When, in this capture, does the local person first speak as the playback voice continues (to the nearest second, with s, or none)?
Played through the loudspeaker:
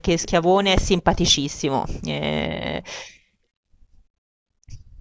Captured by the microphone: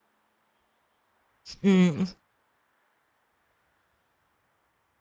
2 s